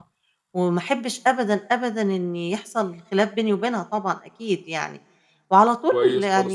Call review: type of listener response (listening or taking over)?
taking over